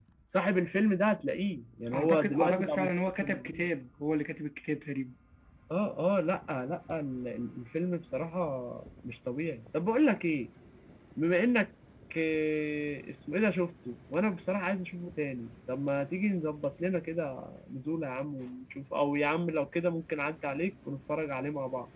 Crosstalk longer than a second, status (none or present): present